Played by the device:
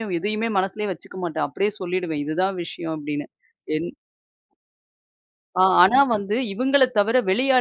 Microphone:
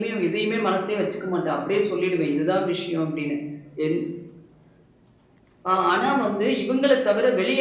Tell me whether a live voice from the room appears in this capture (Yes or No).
No